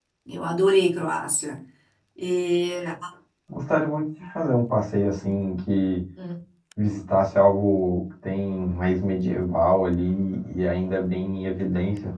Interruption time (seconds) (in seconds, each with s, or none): none